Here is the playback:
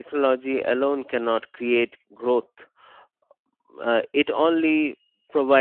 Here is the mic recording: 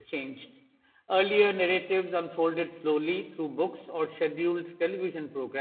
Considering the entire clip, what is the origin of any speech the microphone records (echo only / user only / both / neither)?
user only